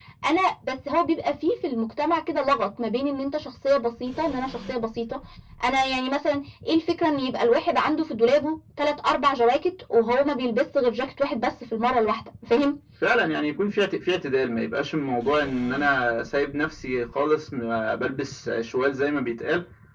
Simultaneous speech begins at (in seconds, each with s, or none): none